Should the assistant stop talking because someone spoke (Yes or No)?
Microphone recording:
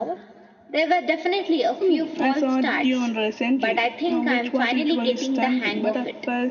Yes